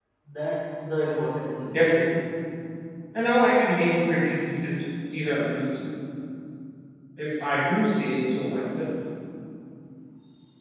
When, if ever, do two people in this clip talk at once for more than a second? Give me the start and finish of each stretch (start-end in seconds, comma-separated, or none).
none